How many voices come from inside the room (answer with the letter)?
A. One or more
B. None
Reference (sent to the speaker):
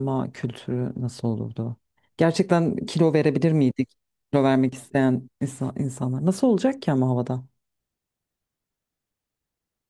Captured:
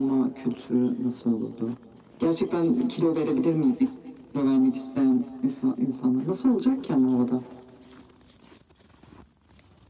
B